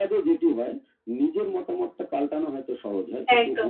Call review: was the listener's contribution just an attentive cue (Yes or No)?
Yes